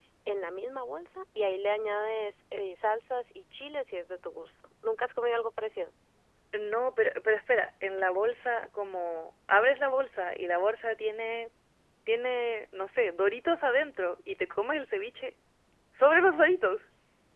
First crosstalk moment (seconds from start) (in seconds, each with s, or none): none